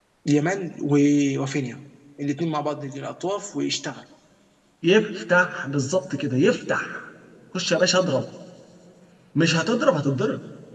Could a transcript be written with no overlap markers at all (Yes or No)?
Yes